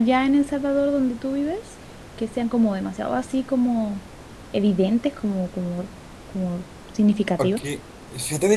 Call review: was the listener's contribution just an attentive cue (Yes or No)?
No